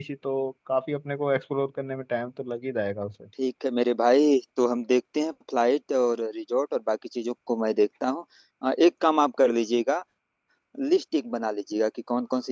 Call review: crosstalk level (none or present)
none